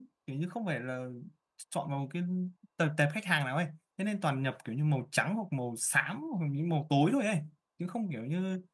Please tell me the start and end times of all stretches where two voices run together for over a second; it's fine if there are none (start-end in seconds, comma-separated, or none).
none